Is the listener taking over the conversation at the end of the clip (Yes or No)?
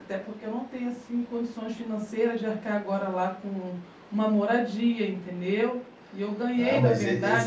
Yes